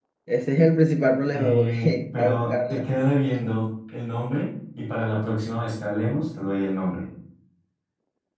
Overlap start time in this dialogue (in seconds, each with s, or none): 1.4 s